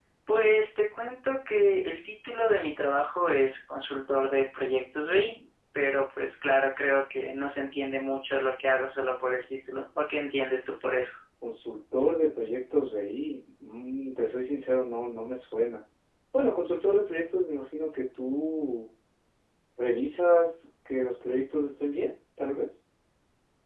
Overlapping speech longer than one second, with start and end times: none

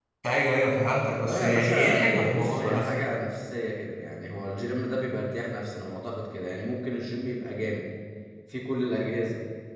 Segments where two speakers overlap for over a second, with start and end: 1.1-2.9

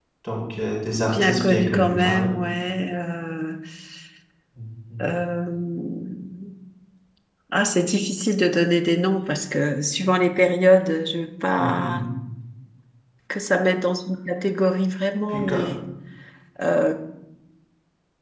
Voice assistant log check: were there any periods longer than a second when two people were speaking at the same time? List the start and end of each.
1.0-2.3

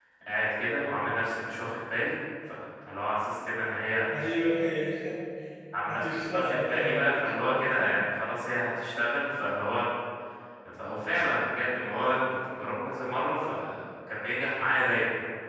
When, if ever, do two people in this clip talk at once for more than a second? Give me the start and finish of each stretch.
5.9-8.0

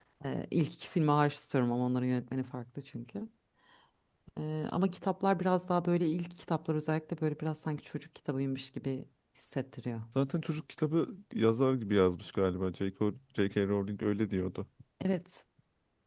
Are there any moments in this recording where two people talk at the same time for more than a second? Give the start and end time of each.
none

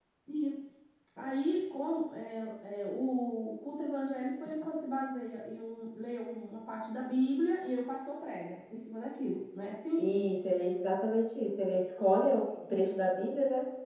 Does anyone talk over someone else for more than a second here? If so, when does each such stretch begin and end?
none

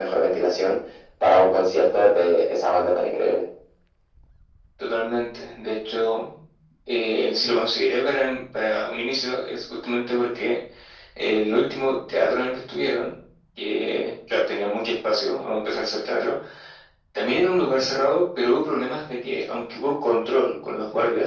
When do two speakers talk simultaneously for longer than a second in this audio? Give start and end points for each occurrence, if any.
none

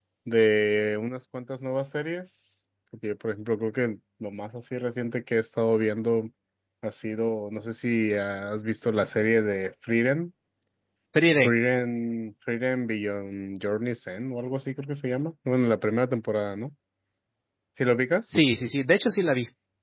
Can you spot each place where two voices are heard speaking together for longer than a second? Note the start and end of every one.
none

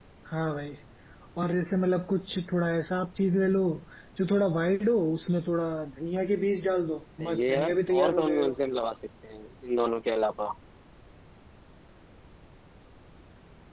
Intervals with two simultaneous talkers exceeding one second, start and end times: 7.2-8.5

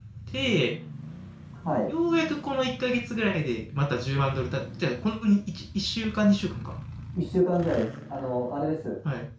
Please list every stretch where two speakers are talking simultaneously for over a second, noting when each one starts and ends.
none

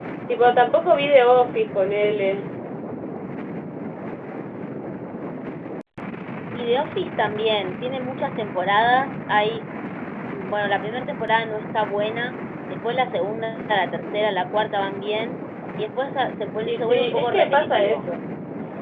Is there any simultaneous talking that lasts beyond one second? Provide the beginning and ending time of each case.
16.6-18.0

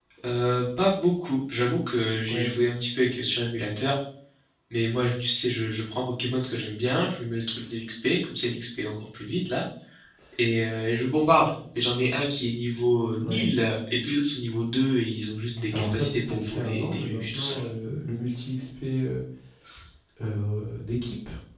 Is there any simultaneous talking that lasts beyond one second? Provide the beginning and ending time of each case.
15.7-17.7

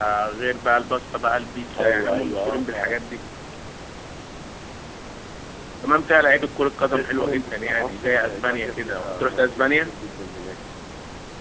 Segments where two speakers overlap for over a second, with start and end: 1.8-3.0, 6.9-9.9

